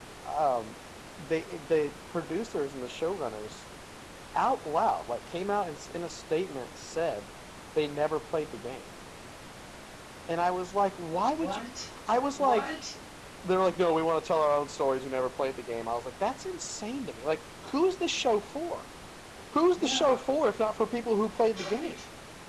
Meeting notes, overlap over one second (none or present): none